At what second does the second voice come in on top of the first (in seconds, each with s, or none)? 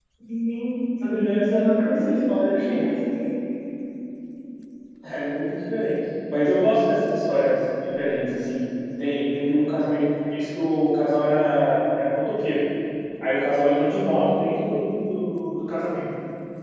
1.1 s